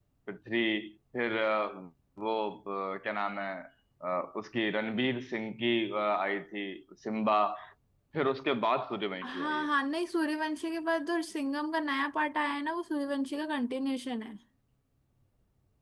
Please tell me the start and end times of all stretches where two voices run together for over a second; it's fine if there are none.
none

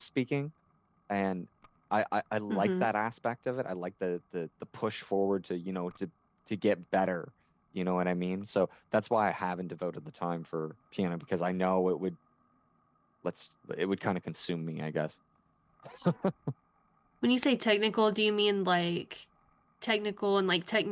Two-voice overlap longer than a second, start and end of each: none

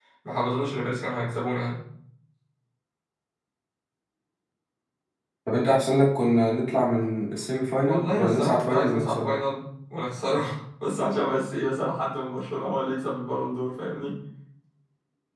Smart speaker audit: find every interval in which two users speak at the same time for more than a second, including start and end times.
7.8-9.3

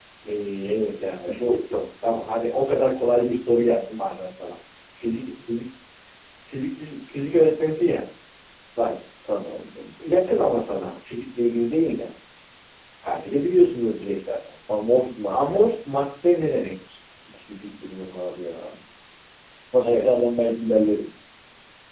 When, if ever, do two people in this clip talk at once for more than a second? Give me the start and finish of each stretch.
none

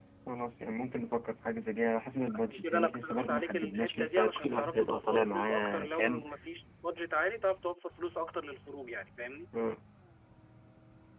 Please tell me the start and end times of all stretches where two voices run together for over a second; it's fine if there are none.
2.4-6.2

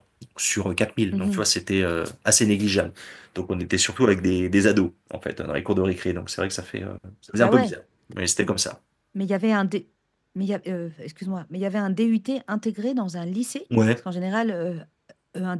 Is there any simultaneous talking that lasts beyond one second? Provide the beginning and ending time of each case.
none

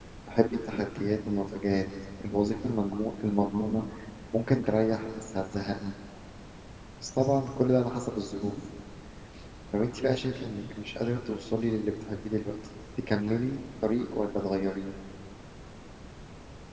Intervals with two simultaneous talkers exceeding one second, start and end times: none

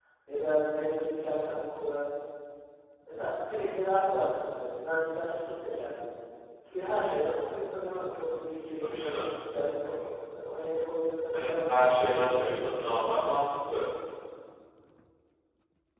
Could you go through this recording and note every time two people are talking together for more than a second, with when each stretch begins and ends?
11.3-13.2

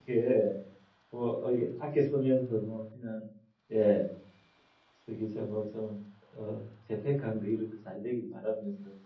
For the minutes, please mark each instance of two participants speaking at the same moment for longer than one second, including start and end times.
none

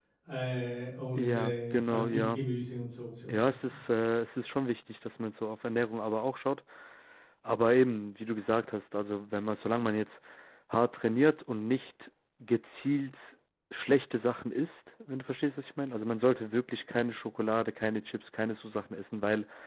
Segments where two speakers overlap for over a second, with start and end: 1.1-2.4

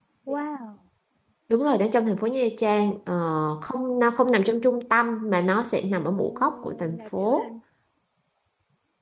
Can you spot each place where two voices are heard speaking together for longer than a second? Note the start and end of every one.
6.0-7.5

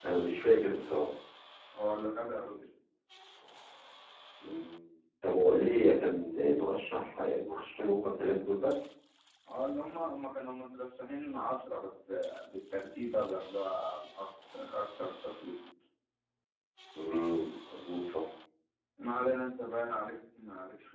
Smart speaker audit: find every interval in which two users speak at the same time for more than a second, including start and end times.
none

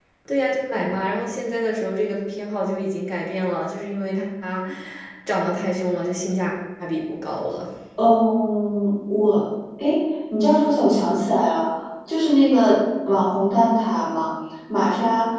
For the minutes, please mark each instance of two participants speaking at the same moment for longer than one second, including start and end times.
none

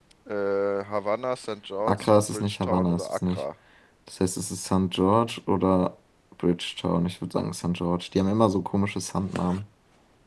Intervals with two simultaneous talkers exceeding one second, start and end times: 1.9-3.4

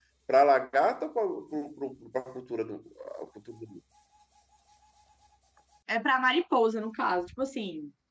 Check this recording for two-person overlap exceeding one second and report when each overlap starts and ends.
none

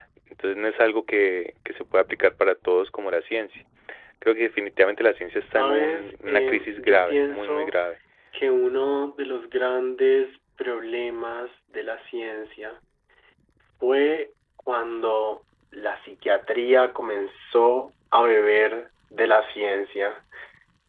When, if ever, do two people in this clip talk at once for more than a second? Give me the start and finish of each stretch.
5.5-7.7

